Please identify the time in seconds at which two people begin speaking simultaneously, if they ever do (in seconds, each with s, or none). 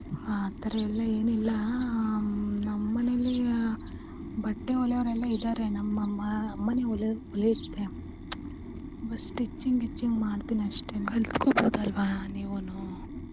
none